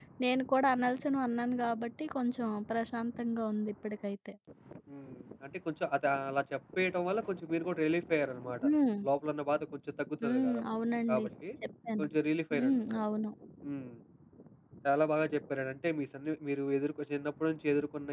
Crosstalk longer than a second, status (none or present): none